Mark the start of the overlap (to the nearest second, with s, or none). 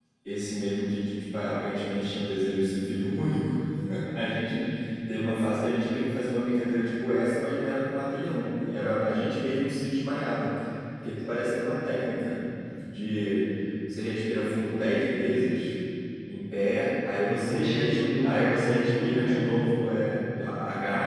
17 s